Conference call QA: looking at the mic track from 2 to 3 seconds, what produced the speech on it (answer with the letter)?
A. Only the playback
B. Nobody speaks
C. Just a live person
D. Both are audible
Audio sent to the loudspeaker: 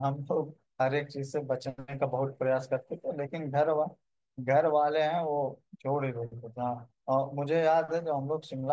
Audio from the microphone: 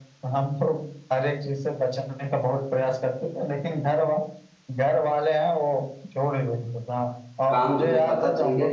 A